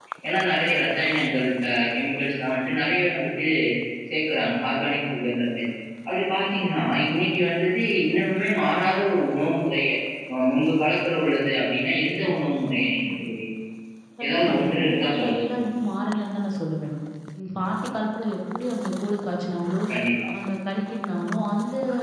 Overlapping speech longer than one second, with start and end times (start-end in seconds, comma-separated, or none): 14.2-15.4